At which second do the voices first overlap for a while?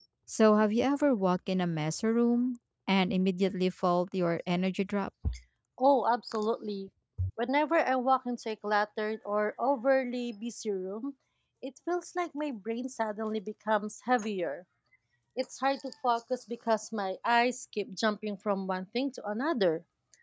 none

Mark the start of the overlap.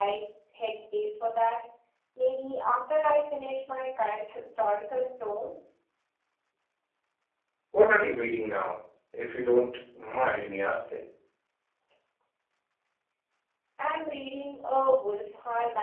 none

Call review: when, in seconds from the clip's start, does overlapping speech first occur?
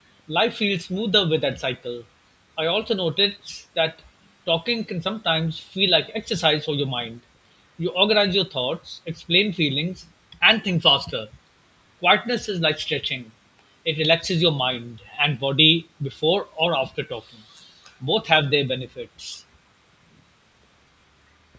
none

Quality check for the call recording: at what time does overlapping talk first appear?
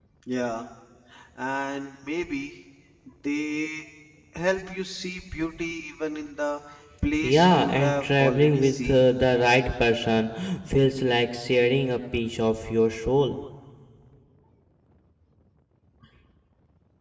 7.2 s

